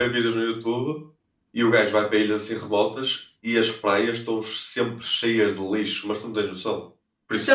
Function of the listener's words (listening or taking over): taking over